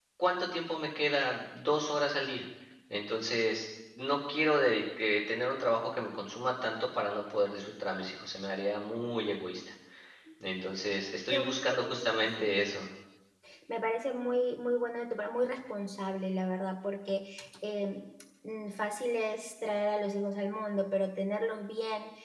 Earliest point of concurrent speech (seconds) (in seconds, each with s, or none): 11.3 s